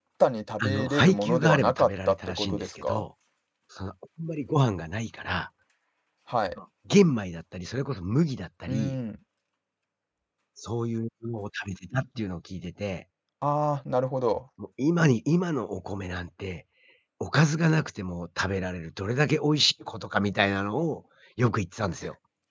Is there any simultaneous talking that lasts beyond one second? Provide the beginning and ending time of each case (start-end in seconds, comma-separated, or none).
0.6-3.0